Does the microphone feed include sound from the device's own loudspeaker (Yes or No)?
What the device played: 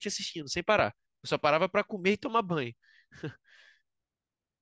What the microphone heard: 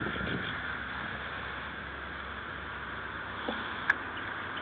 No